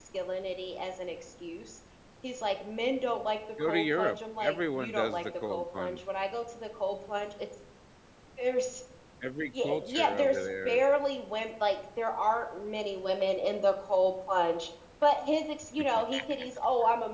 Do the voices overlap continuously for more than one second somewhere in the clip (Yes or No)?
Yes